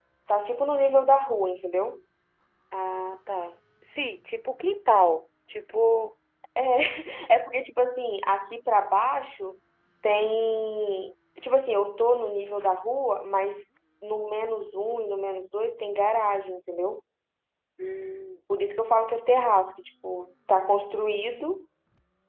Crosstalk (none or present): none